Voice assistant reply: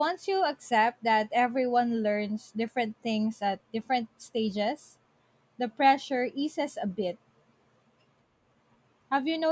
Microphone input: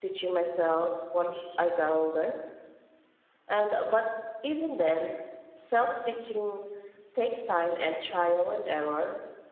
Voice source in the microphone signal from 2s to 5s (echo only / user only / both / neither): user only